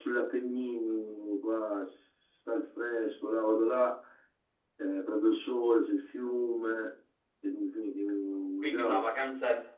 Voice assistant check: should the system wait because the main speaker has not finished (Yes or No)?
No